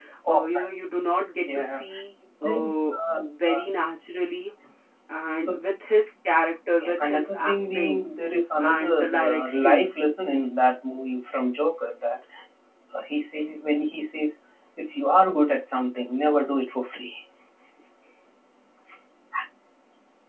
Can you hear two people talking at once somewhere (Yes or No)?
Yes